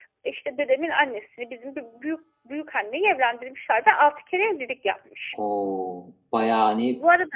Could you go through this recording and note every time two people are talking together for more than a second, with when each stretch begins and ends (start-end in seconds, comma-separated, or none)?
none